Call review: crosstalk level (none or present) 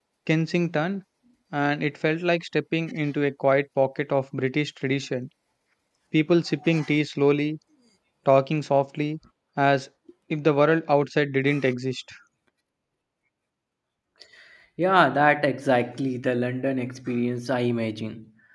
none